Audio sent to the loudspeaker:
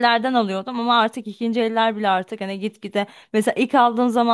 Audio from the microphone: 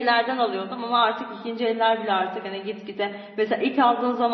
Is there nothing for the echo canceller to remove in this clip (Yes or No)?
No